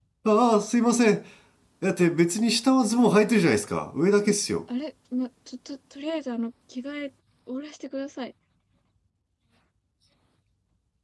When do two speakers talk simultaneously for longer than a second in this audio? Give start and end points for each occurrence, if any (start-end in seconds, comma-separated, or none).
none